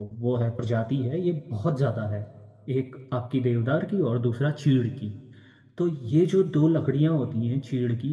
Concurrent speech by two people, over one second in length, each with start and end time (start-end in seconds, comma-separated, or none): none